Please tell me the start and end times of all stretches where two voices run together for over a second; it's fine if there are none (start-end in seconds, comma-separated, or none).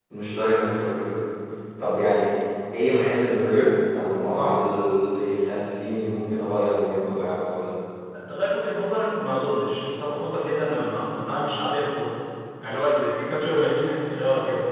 none